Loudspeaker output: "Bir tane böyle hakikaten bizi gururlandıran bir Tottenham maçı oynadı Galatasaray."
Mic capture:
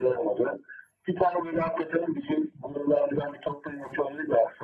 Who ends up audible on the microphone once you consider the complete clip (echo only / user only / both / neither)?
echo only